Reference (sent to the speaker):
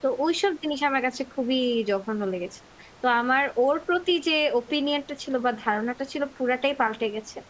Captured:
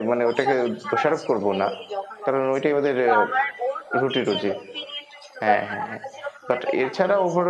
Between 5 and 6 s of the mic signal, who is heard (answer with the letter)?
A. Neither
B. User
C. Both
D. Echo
C